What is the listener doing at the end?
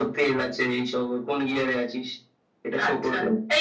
taking over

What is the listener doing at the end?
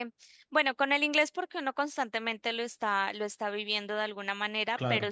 listening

